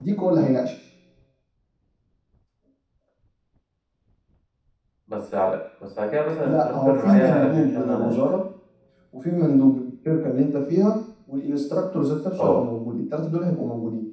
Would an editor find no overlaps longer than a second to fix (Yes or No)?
No